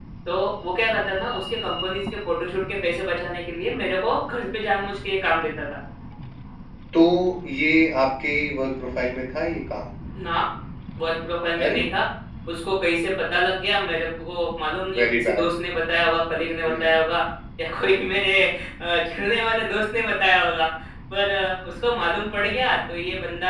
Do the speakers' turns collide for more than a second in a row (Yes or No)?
No